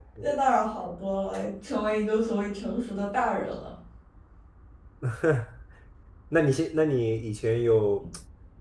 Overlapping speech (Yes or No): No